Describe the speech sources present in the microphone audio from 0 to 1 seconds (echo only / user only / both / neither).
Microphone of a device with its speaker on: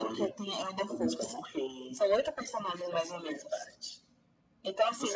echo only